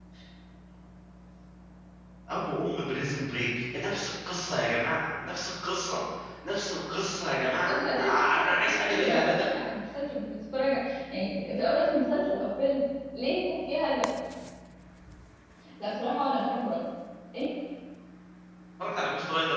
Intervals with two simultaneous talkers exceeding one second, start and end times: 7.7-9.4

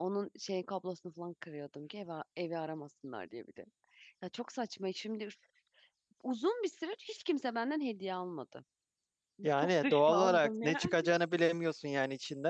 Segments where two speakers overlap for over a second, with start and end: 9.6-10.9

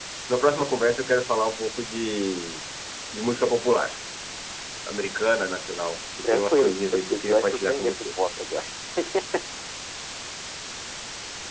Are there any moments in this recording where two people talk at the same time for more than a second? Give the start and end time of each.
6.2-8.1

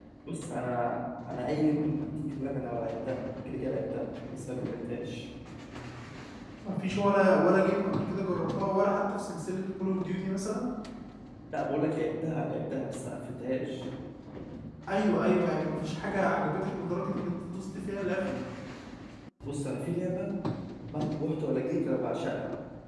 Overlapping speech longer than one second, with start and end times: none

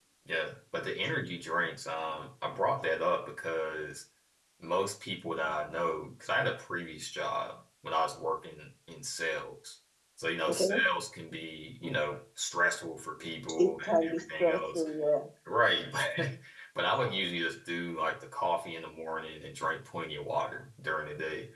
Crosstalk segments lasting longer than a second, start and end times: 13.6-14.8

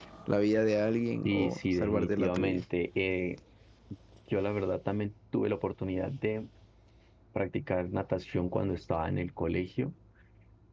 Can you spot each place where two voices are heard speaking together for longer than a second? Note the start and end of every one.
1.2-2.6

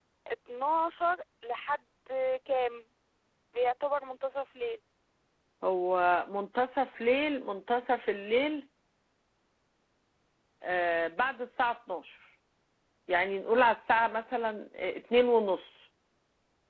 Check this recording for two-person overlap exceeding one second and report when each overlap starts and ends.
none

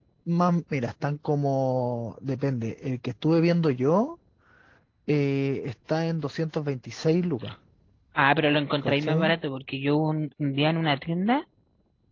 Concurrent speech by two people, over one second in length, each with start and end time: none

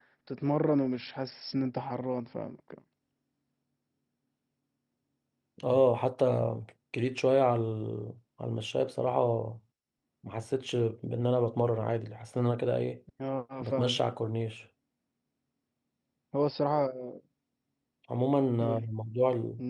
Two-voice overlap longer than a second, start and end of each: none

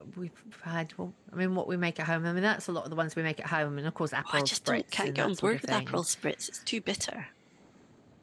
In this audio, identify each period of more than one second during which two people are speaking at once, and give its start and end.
4.3-6.0

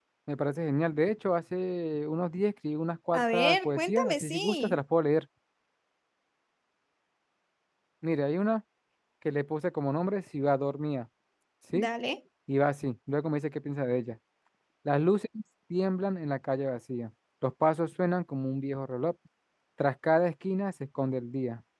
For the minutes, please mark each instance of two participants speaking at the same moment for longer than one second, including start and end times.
3.1-4.8

